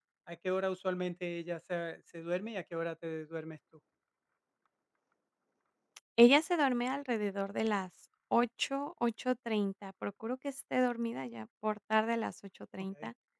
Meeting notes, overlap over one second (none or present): none